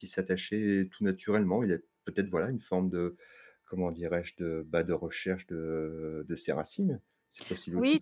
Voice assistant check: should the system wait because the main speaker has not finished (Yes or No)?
No